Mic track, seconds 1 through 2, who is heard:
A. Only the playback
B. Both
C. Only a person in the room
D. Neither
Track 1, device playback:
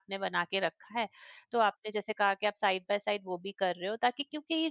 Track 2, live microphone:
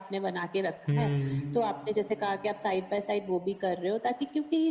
B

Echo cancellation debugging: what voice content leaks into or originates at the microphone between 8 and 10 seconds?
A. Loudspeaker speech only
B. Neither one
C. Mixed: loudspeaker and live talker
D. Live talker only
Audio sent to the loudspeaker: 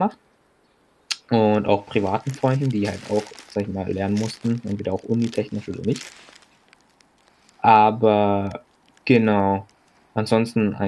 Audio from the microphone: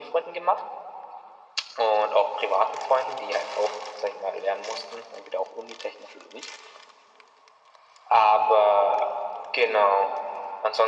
A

